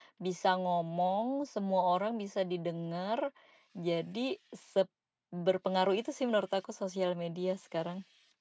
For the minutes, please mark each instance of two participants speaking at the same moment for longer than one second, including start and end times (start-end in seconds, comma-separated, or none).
none